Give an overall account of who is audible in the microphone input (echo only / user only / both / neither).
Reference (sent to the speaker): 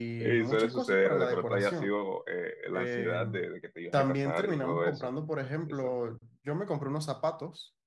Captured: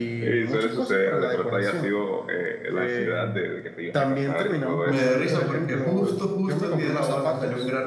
both